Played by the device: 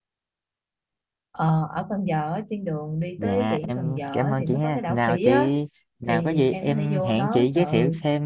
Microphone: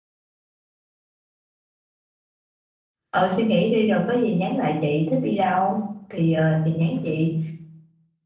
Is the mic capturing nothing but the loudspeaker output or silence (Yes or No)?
No